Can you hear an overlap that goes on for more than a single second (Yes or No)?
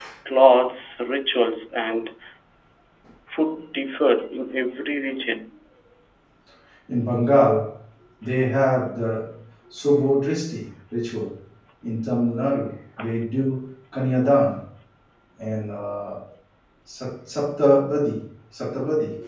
No